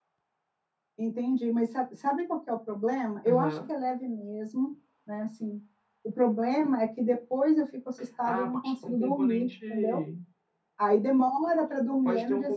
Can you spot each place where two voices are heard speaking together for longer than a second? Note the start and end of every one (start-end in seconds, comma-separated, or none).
8.2-10.0